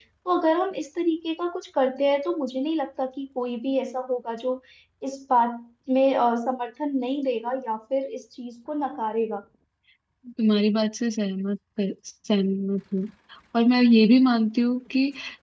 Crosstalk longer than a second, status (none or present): none